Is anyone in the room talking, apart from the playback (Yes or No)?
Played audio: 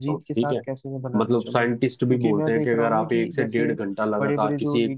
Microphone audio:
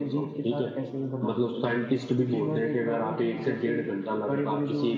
No